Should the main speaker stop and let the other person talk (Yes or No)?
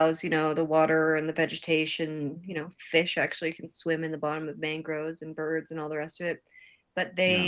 No